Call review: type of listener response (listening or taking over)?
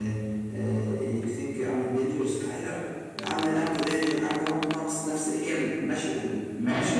taking over